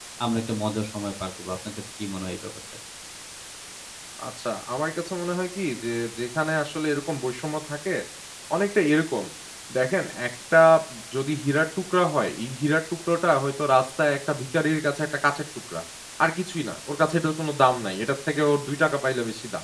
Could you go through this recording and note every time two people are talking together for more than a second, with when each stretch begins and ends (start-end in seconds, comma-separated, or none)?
none